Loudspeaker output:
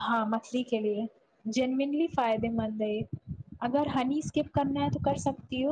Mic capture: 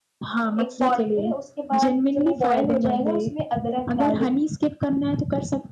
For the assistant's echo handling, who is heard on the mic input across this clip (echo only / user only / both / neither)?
both